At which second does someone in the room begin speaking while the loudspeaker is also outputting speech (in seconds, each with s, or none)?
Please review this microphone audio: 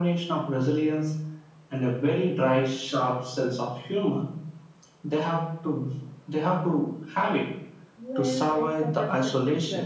7.9 s